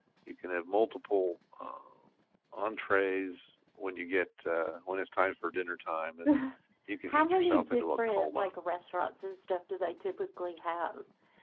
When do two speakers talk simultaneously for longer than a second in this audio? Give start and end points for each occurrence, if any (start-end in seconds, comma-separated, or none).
7.1-8.4